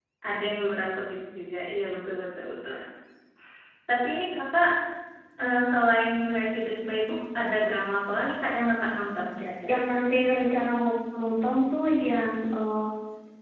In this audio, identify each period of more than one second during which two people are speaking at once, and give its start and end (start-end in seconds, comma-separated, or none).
none